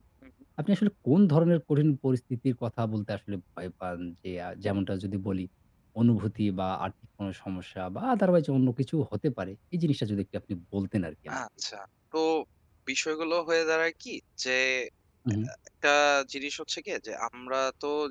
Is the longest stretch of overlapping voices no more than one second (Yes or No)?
Yes